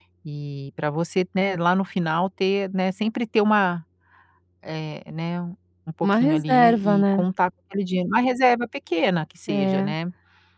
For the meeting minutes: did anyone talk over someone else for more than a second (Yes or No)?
Yes